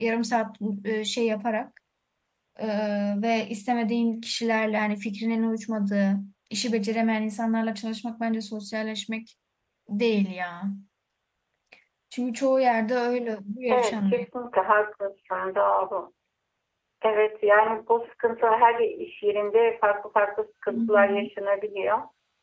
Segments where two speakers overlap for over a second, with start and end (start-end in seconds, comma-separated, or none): none